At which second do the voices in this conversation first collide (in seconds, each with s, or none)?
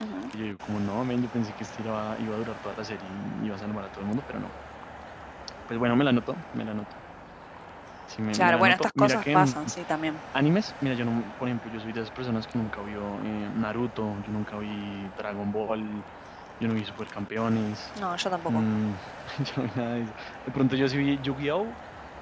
8.3 s